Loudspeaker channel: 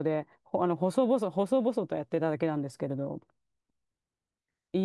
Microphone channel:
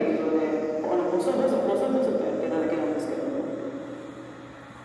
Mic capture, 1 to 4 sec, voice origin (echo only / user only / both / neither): echo only